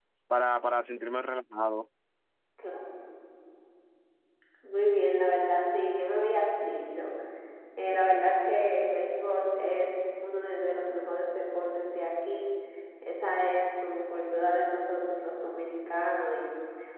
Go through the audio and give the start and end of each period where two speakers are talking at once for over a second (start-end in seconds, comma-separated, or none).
none